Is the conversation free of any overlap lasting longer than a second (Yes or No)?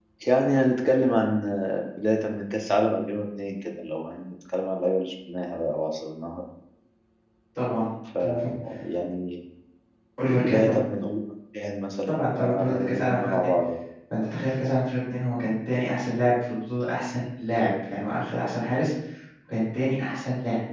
No